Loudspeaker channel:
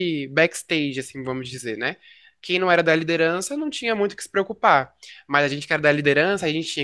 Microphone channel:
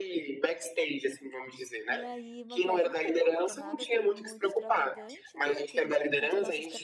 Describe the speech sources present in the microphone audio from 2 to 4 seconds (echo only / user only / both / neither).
both